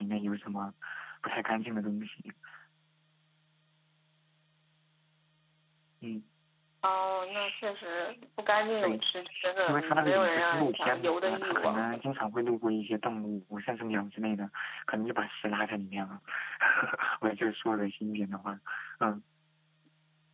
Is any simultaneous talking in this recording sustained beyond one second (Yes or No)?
Yes